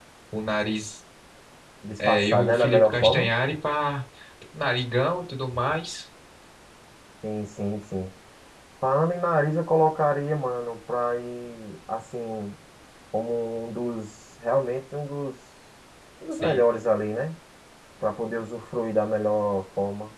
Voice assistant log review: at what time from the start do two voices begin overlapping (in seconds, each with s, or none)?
2.0 s